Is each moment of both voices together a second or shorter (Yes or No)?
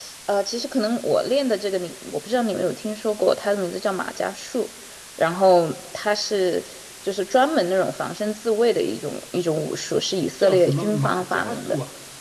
No